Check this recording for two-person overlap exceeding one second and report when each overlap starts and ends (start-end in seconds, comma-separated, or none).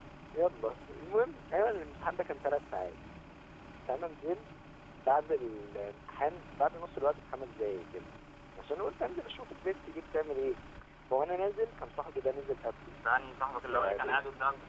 none